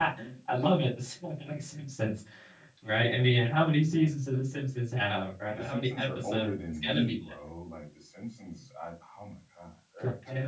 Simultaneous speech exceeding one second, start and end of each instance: 5.5-7.2

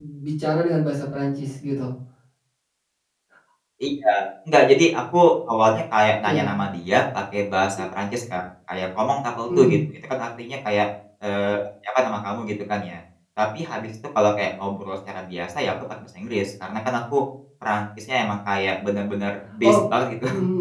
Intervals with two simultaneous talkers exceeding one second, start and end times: none

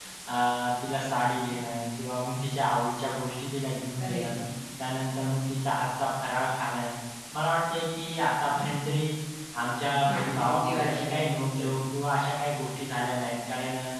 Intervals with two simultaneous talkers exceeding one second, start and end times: 10.1-11.7

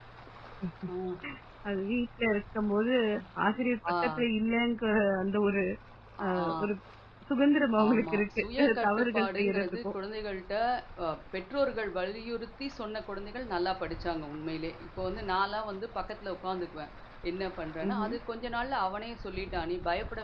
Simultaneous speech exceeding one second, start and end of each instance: 7.9-9.9

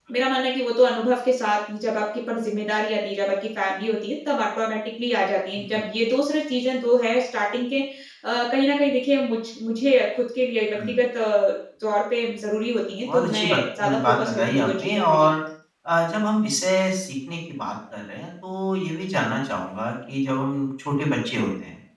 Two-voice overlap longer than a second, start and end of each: 13.1-15.3

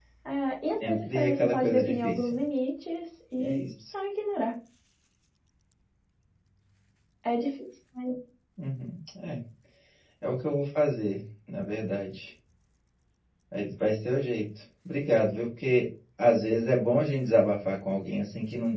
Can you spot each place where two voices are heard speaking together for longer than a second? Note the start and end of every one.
0.9-2.3

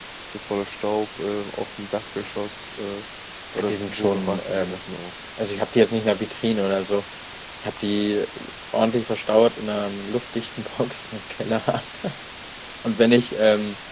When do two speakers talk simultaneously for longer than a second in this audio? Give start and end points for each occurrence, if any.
3.5-4.8

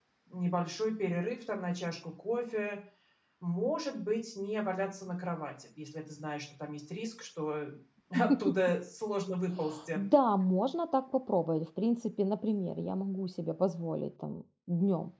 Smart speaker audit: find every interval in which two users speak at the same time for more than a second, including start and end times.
none

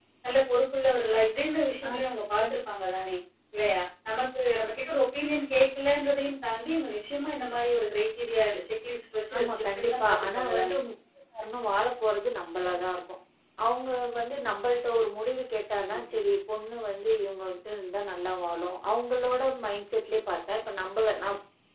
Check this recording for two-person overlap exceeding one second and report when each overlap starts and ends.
9.4-10.8

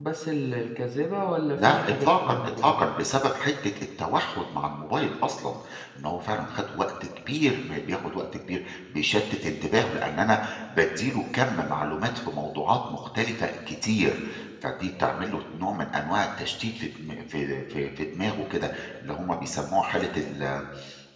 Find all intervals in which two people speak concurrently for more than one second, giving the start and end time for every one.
1.6-2.9

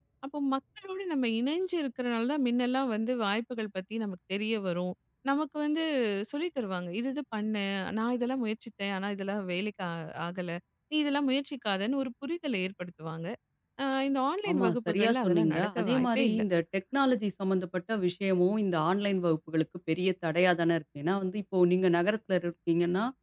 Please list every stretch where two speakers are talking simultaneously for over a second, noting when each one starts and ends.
14.5-16.4

